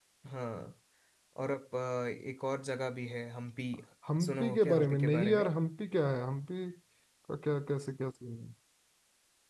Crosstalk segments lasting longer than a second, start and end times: 4.2-5.5

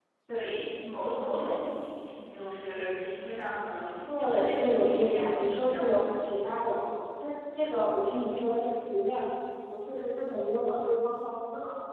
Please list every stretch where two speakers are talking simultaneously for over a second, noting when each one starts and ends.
4.1-6.3

